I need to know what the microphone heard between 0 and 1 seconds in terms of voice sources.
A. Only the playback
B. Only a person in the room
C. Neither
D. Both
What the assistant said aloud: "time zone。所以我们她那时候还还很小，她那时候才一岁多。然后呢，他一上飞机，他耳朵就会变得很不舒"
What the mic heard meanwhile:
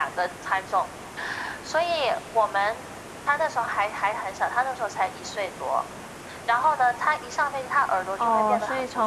A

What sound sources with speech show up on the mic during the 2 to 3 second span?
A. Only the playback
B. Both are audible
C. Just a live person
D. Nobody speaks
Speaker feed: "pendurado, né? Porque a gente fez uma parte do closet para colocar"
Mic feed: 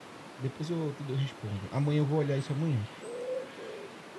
C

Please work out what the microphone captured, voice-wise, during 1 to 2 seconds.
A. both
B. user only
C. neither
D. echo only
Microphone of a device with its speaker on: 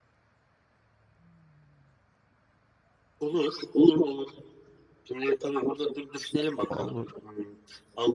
C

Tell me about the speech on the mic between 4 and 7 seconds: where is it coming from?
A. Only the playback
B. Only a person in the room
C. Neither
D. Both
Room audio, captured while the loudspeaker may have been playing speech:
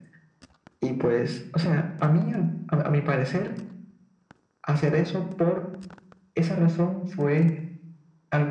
A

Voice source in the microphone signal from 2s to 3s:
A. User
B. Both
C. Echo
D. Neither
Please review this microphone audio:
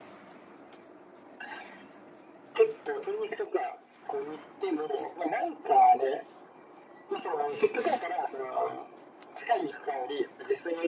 C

